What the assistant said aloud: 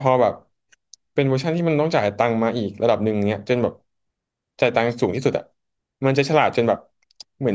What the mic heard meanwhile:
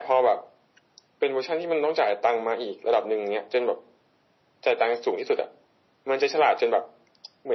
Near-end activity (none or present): none